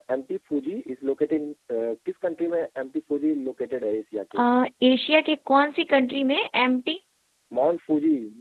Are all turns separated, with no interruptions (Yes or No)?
Yes